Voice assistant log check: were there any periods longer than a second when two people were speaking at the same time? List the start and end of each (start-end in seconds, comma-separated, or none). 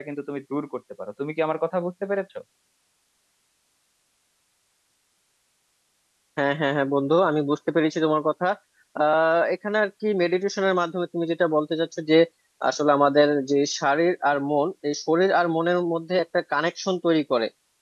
none